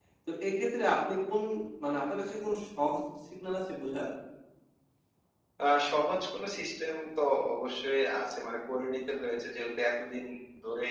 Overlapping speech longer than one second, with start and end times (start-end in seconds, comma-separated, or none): none